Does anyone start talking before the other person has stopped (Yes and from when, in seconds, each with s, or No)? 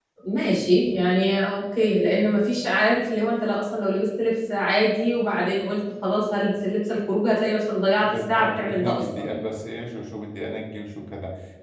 Yes, from 8.0 s